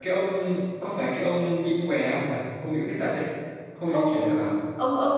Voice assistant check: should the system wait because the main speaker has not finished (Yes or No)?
No